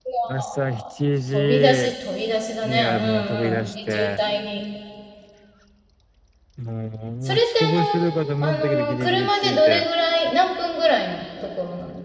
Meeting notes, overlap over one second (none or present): present